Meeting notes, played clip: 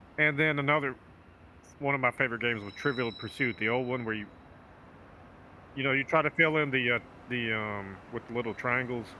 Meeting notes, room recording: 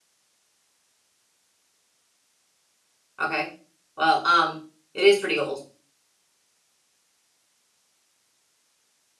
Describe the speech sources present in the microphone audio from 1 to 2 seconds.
neither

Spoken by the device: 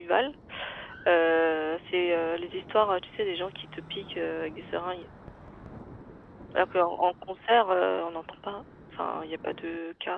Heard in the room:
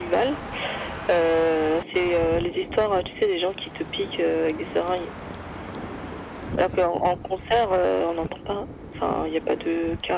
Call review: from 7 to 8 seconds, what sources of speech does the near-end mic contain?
echo only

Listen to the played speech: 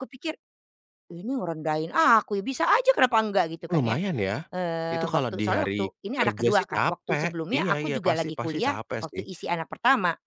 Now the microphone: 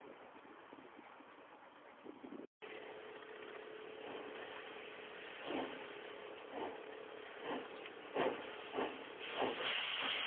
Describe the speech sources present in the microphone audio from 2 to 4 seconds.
neither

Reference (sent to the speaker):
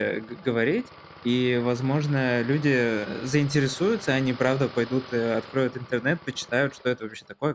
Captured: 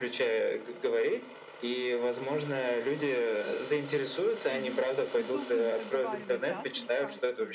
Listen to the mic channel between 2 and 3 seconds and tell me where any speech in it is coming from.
echo only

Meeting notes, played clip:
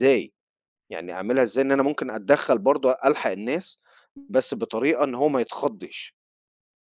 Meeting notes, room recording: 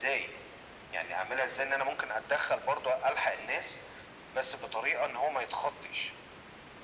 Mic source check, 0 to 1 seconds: echo only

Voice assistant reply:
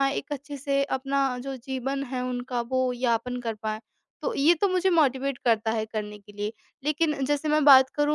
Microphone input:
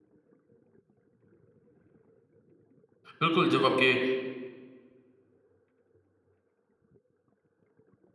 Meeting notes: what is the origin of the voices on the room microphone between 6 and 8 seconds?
neither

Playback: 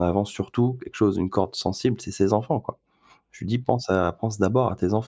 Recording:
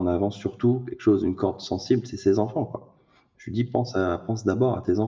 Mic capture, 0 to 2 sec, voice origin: echo only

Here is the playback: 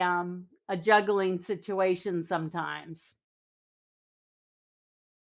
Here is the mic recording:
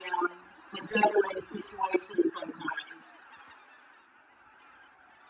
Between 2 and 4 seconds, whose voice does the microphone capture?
echo only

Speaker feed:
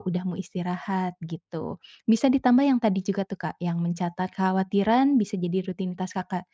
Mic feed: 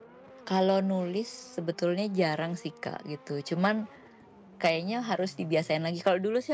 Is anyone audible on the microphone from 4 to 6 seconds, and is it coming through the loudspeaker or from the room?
user only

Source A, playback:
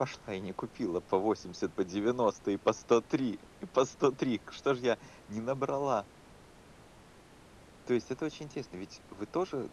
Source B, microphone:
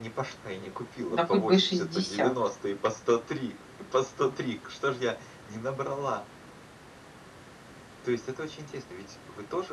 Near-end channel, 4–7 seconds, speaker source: echo only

